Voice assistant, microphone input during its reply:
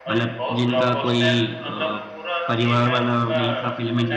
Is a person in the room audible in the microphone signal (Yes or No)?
Yes